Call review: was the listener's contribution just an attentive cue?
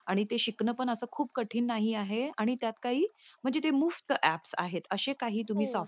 No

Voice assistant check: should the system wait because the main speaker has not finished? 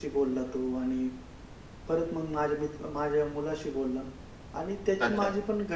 Yes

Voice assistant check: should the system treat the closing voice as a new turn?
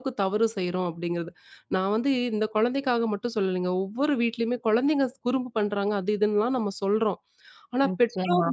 No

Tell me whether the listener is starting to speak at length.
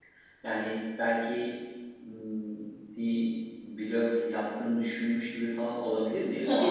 Yes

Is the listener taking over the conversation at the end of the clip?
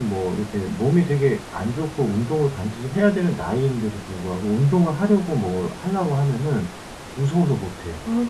Yes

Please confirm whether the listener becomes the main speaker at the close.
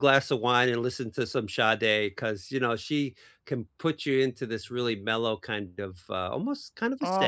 Yes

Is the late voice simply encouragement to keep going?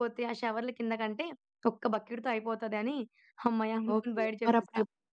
No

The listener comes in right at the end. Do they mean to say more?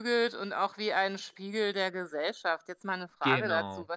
No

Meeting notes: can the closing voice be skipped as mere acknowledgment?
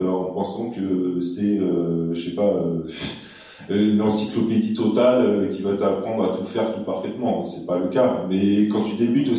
Yes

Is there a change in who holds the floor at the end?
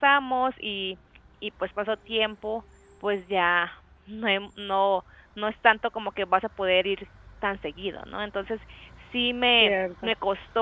No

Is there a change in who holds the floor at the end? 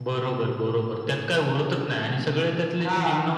No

